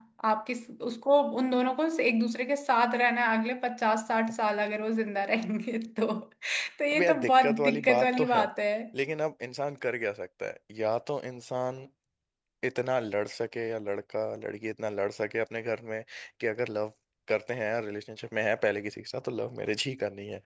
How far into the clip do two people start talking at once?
6.9 s

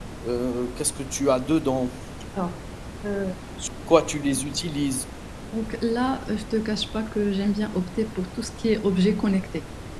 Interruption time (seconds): none

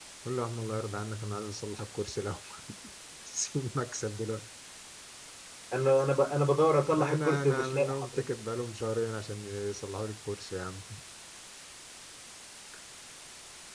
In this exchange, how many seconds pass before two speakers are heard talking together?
6.6 s

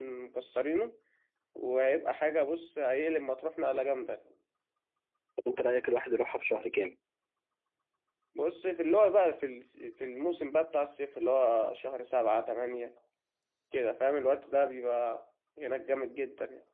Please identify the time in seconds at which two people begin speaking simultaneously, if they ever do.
none

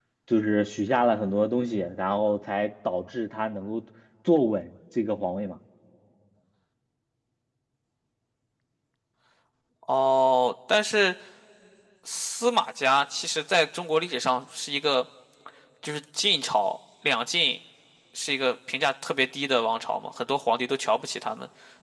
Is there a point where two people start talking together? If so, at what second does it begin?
none

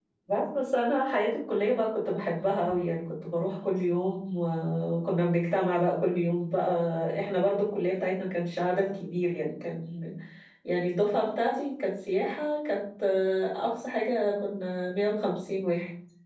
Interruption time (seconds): none

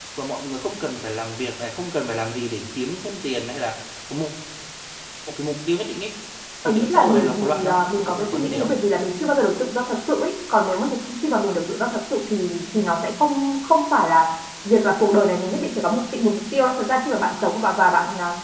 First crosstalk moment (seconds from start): 6.7 s

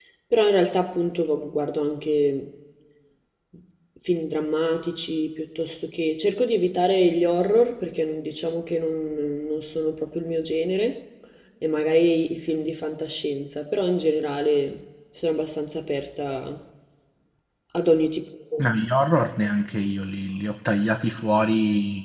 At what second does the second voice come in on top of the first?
none

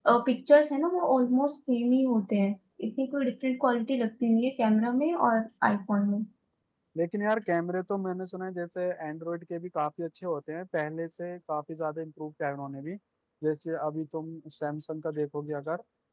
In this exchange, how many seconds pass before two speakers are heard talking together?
none

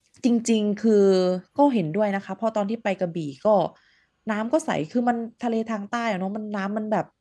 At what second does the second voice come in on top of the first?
none

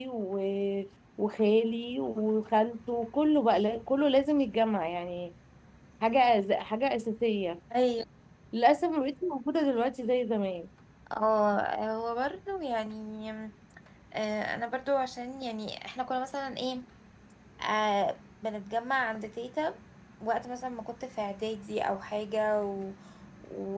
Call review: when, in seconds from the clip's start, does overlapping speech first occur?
none

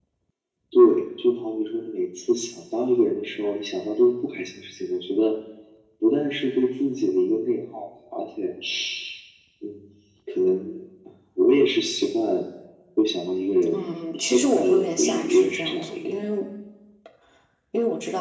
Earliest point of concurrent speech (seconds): 13.7 s

